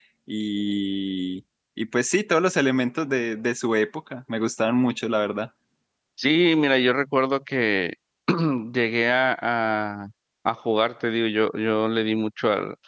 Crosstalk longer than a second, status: none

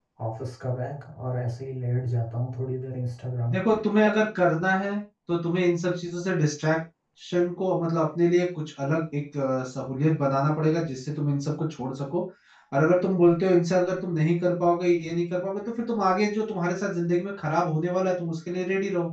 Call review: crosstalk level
none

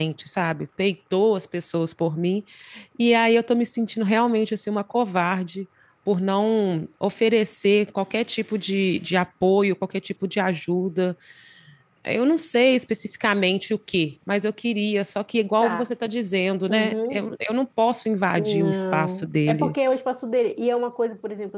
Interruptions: present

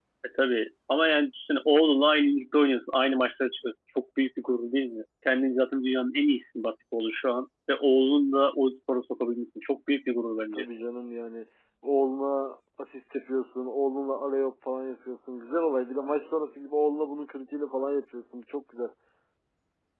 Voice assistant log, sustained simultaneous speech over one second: none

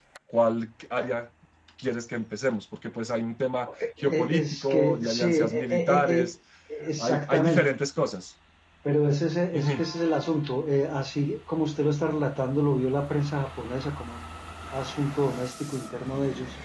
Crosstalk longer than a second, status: present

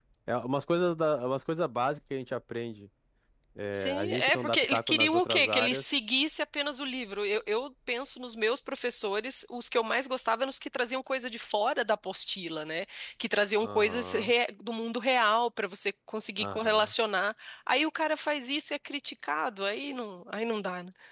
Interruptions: present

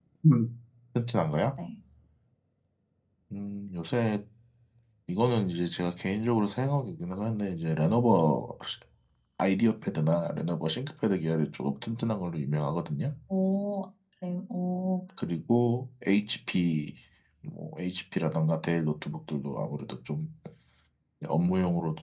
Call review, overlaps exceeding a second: none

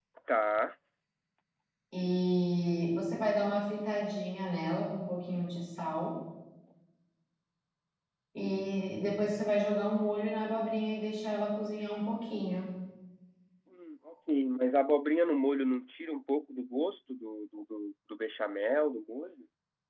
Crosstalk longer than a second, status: none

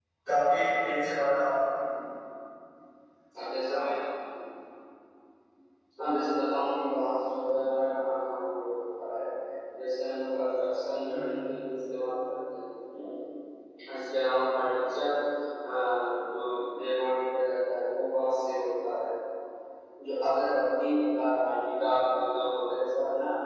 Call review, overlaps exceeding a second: none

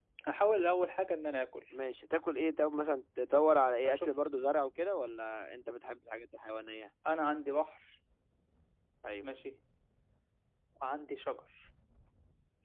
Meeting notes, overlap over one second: none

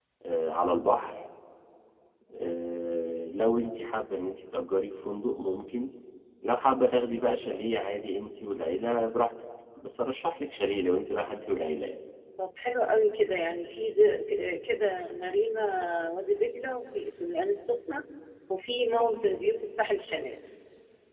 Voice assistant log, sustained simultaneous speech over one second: none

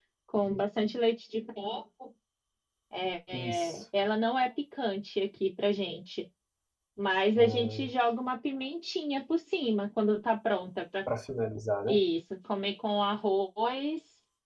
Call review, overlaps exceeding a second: none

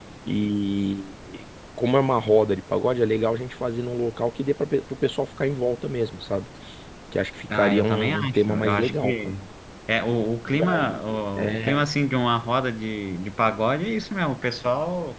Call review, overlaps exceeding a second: present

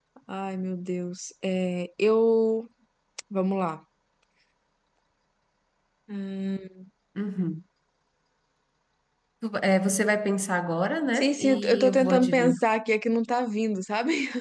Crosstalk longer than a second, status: present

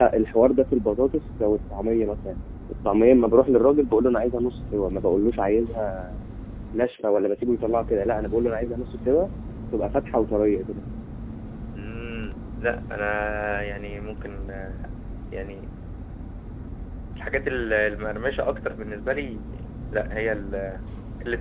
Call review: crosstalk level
none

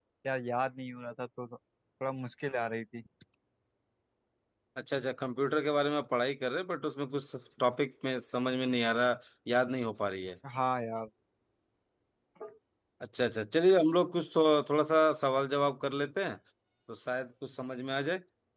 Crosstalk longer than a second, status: none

